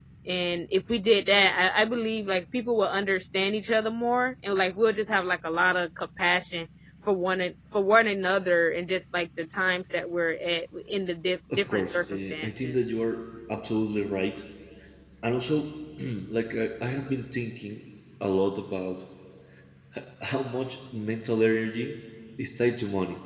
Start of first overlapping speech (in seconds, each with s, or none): 11.5 s